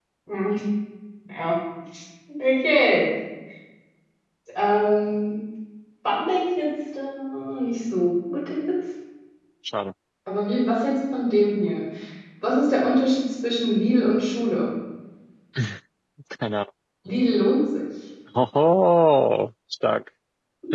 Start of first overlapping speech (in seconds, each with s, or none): none